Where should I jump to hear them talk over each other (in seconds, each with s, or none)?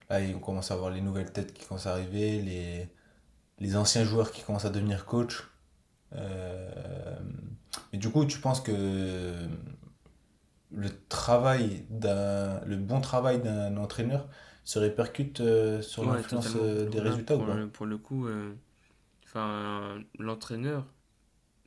16.0 s